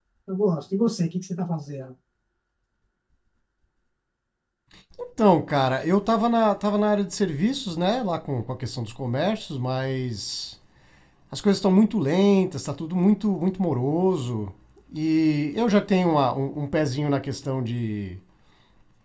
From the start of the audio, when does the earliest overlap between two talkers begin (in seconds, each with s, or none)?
none